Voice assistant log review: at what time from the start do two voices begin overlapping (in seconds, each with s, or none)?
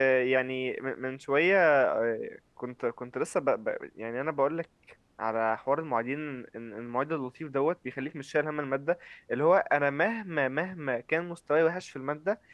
none